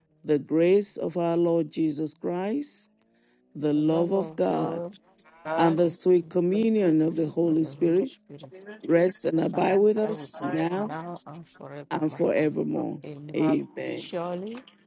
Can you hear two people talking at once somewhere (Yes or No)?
Yes